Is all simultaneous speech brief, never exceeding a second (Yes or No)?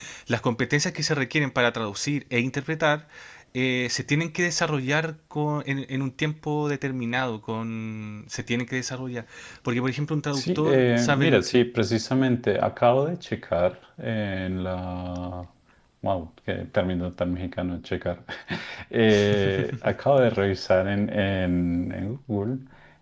No